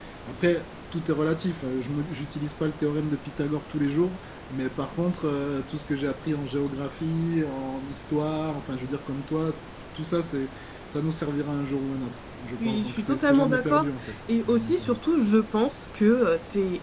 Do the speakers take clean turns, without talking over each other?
No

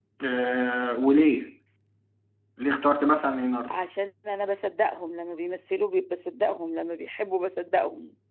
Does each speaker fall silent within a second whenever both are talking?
Yes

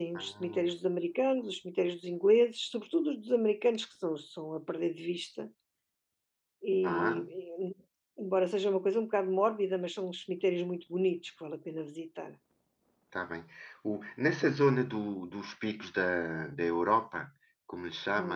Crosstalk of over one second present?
No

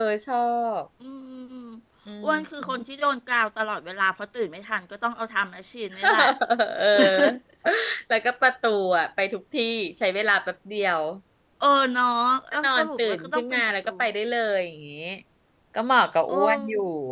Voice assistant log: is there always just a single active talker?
No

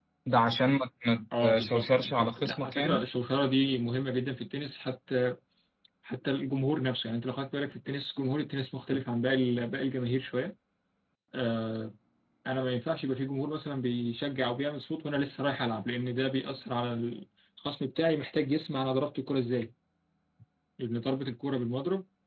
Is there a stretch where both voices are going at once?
Yes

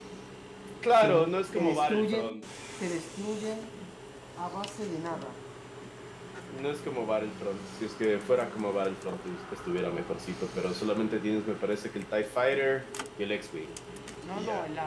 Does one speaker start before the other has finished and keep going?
Yes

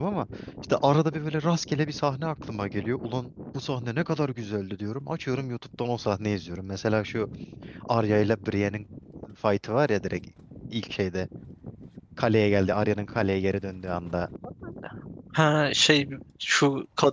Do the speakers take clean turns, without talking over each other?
Yes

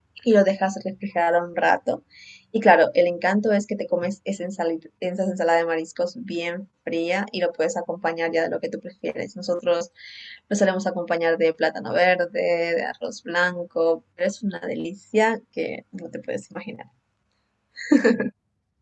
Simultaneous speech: No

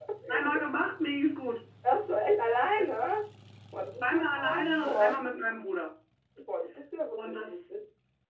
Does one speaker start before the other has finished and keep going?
Yes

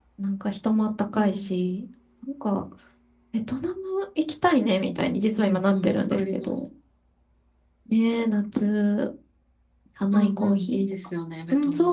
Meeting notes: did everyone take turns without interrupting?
No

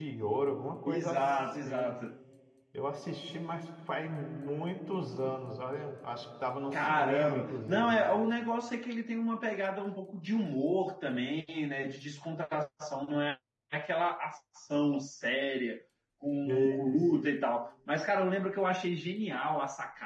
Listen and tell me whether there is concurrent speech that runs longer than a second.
Yes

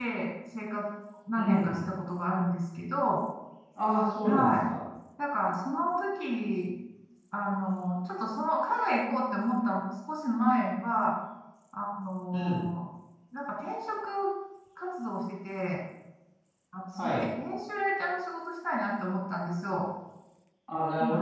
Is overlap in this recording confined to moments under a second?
Yes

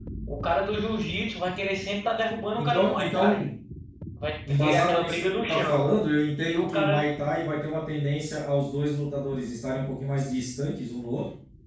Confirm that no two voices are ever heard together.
No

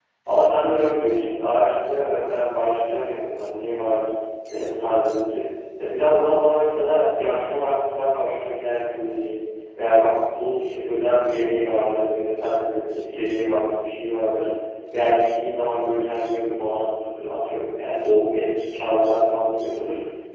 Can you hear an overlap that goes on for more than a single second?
No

